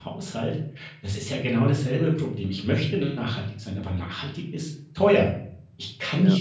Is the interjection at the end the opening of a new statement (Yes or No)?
No